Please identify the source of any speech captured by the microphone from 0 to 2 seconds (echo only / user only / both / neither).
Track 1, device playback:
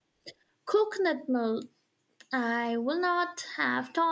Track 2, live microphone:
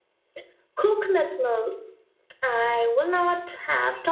echo only